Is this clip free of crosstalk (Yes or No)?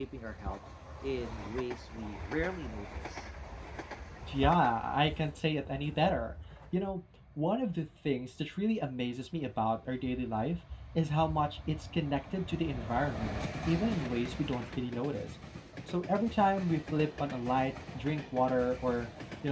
Yes